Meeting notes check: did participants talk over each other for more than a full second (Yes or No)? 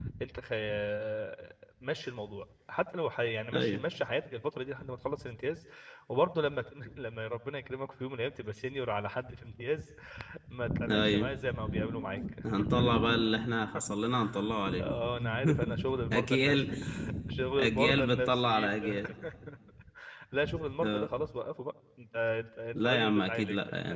Yes